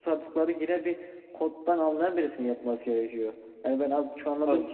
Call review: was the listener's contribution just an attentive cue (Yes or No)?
Yes